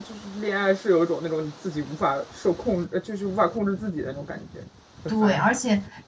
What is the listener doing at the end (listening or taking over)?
taking over